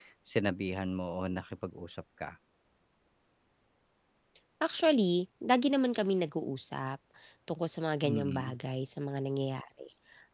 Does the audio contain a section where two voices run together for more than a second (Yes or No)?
No